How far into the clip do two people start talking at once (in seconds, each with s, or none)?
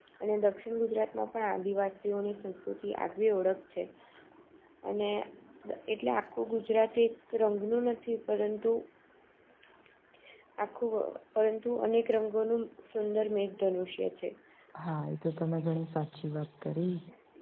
none